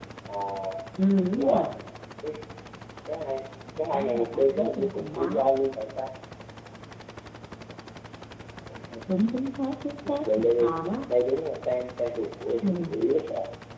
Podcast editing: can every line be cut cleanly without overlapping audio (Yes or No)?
No